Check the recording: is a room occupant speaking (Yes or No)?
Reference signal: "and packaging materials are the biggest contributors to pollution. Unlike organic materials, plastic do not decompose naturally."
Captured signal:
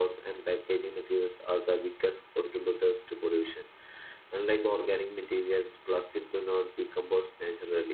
No